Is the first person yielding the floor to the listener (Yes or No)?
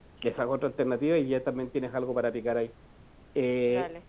No